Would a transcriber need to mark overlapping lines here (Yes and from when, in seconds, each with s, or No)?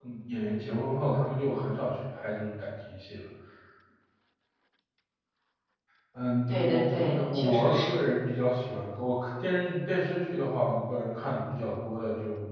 Yes, from 6.5 s